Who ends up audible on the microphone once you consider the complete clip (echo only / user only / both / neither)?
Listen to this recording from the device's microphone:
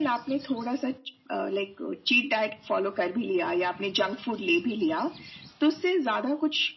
echo only